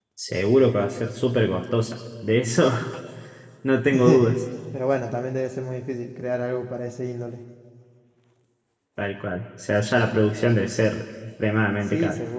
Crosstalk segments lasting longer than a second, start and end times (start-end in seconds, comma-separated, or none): none